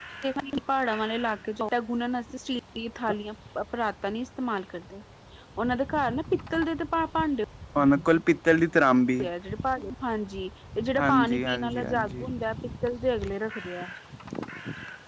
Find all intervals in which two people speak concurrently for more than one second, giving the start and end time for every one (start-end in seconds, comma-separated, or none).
11.0-12.3